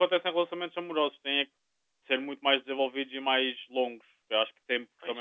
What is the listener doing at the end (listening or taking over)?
listening